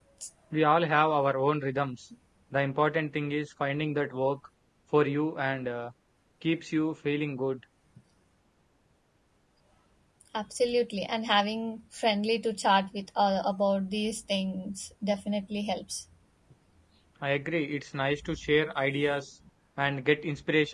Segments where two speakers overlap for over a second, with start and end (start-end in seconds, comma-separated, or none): none